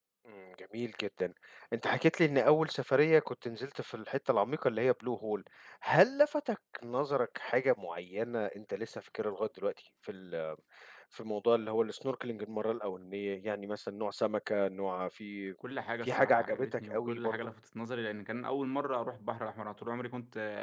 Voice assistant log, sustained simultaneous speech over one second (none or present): present